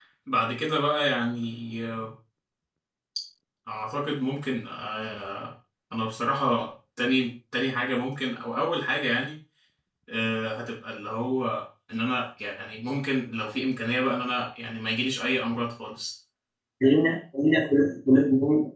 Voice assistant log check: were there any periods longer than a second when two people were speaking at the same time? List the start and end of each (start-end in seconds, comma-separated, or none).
none